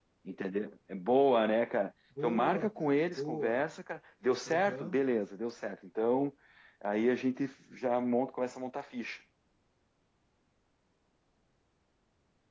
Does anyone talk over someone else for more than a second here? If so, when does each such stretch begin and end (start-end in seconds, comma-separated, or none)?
2.2-3.6